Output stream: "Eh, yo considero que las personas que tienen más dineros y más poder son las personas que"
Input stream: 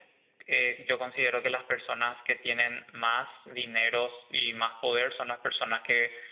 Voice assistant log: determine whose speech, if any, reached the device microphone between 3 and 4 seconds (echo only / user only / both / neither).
echo only